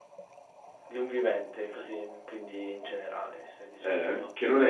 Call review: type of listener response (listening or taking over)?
taking over